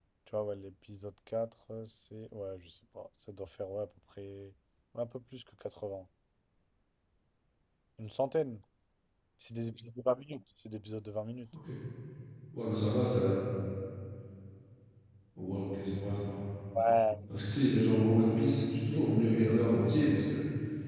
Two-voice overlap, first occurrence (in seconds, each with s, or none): none